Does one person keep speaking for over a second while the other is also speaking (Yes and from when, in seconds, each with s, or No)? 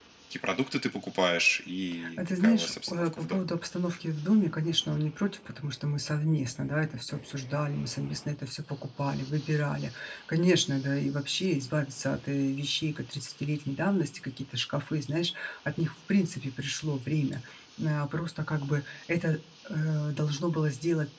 Yes, from 2.0 s